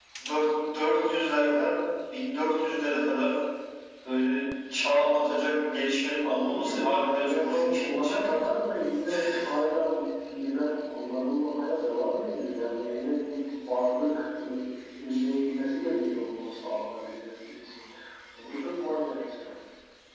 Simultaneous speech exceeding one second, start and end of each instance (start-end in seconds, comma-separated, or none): 6.2-8.2